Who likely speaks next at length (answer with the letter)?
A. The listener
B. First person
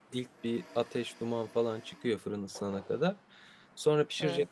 B